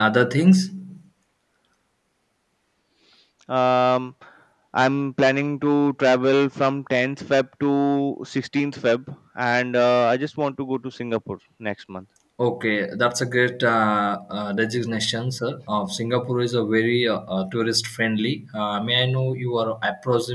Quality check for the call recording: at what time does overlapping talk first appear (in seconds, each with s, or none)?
none